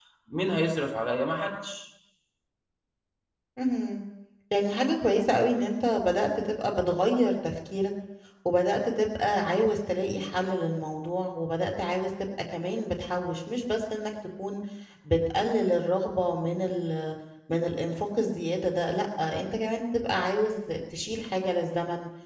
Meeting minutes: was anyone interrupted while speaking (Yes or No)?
No